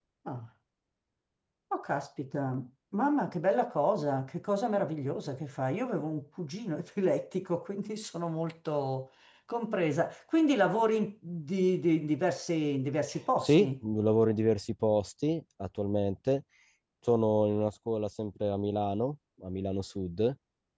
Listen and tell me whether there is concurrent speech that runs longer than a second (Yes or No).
No